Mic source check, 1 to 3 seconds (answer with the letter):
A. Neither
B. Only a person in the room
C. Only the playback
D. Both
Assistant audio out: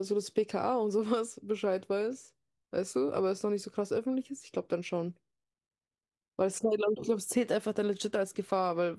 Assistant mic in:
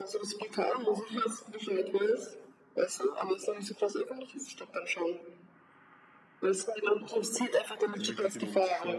C